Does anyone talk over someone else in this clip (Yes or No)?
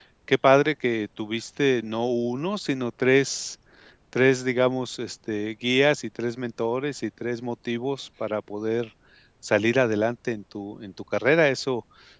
No